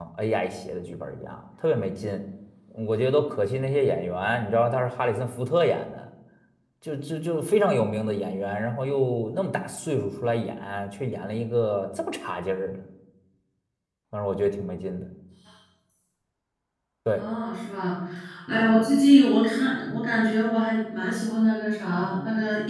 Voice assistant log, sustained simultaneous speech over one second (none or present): none